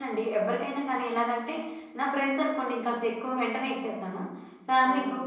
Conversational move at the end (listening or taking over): listening